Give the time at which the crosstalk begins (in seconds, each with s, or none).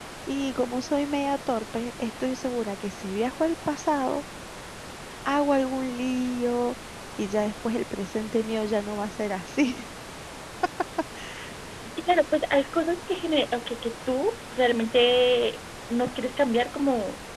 none